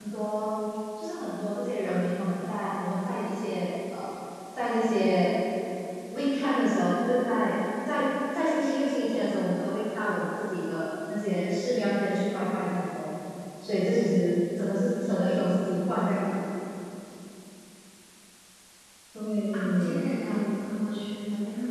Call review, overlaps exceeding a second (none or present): none